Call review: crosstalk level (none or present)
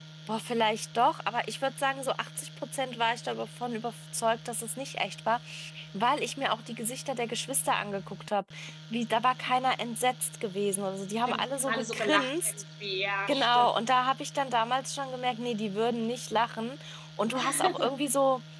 present